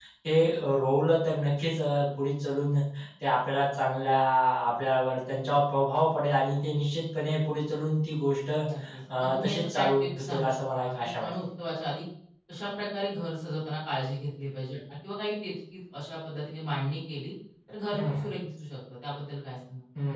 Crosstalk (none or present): present